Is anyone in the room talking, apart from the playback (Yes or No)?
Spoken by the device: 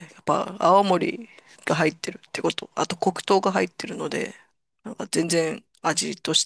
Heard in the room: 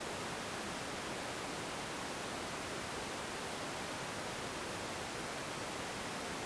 No